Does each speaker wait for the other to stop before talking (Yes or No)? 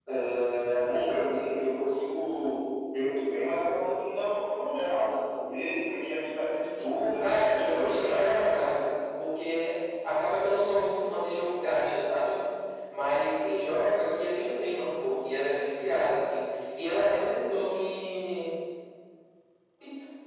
No